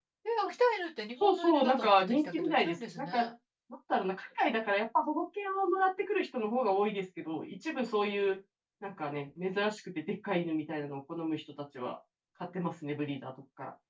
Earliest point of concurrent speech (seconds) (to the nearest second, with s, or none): 1 s